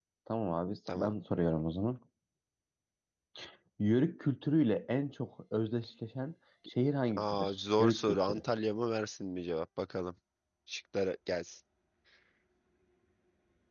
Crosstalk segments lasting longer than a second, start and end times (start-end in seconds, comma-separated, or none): 7.2-8.4